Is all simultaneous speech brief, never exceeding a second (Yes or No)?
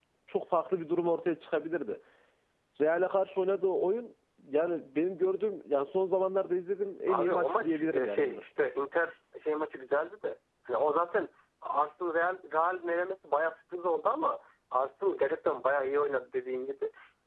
No